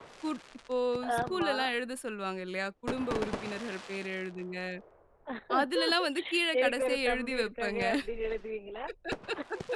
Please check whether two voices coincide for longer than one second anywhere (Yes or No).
Yes